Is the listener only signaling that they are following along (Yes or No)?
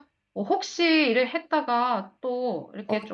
No